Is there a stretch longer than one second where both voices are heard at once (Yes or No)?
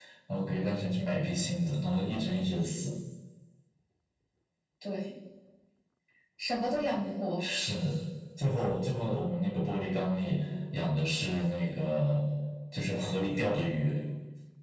No